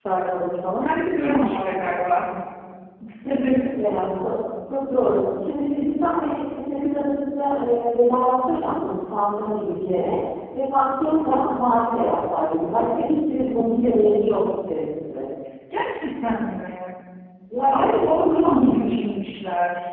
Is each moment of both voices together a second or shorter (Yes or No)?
No